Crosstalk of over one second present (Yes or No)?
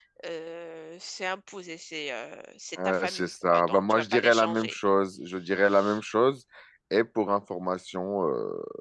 Yes